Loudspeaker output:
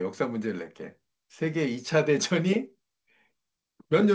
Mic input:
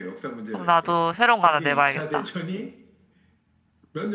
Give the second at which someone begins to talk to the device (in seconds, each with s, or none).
0.5 s